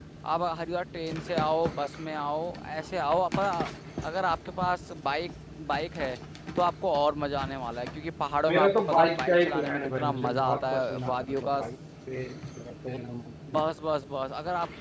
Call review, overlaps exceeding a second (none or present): present